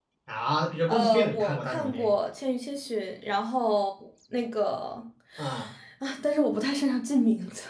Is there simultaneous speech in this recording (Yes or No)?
Yes